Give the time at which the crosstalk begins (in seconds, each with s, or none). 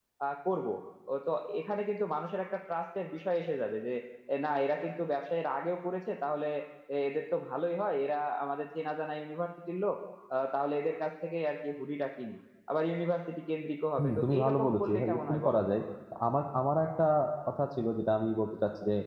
14.0 s